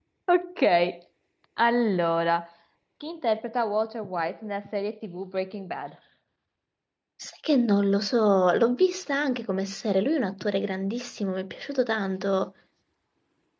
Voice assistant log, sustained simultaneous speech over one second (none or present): none